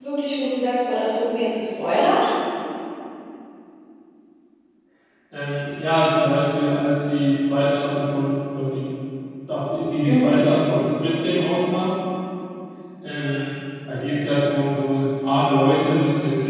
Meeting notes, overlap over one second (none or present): none